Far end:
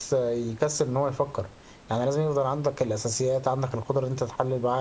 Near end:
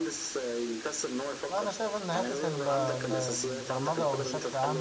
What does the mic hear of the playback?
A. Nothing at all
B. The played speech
B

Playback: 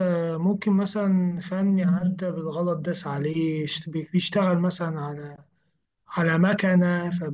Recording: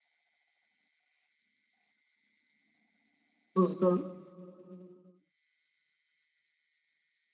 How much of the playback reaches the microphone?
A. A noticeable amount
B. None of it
B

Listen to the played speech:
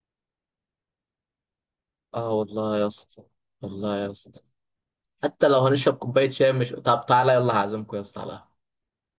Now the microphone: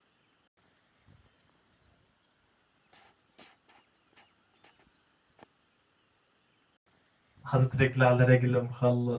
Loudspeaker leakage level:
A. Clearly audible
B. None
B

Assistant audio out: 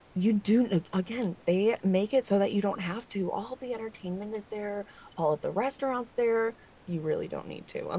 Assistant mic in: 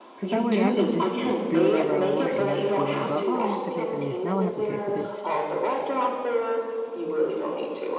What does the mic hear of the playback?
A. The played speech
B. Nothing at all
A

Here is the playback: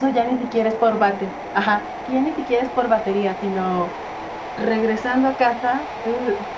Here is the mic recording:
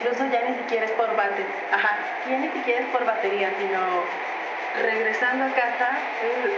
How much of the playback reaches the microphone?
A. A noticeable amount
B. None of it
A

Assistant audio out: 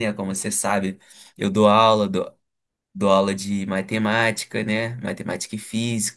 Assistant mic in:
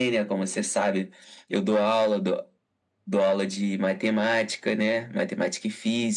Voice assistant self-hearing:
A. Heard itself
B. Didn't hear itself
A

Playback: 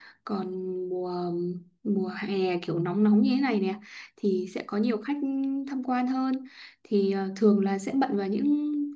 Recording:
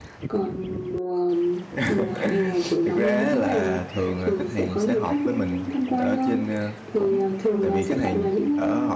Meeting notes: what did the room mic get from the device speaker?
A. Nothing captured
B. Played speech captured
B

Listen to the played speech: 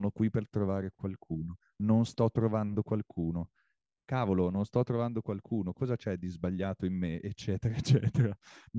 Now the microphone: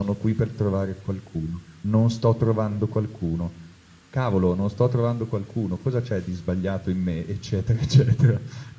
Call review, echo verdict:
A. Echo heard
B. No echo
A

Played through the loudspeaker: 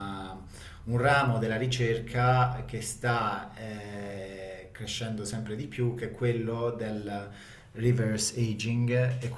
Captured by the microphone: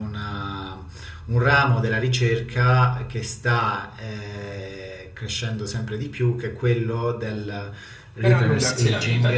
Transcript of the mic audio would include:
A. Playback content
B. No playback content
A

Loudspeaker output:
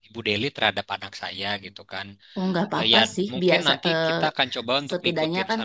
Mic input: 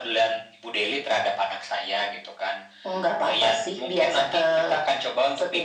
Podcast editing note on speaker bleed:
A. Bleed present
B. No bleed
A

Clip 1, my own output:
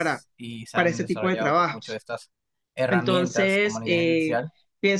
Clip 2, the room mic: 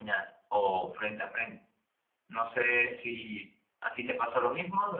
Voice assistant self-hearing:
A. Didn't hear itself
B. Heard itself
A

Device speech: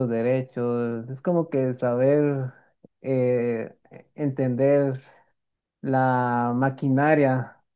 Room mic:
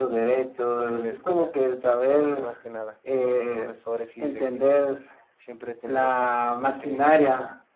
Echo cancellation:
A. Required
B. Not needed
A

